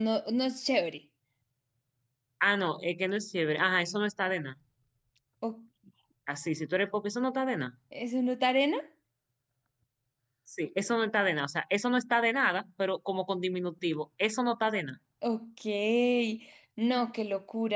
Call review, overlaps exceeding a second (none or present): none